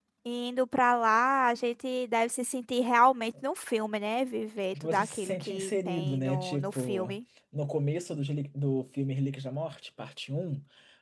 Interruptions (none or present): present